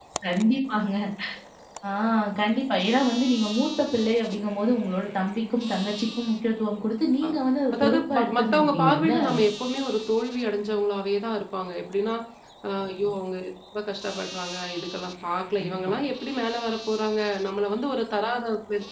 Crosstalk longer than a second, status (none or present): present